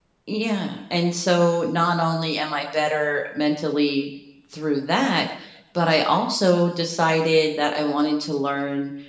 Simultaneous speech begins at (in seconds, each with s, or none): none